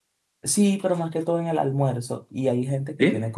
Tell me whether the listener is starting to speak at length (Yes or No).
No